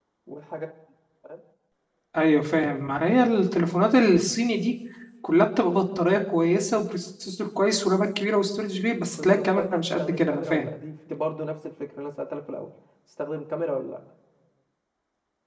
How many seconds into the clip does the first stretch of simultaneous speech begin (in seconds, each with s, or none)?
9.2 s